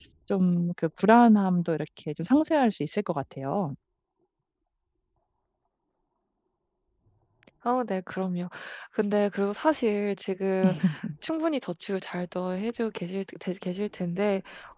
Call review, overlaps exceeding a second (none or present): none